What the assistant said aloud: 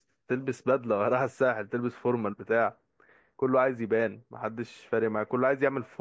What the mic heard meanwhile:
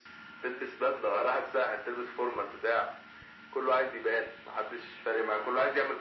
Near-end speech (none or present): none